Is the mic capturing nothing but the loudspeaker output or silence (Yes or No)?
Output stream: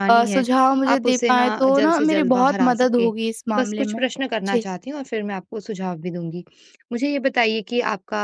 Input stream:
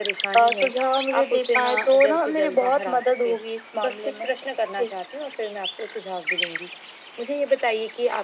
Yes